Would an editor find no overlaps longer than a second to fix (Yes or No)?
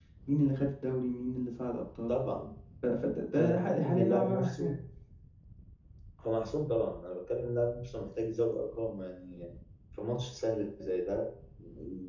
No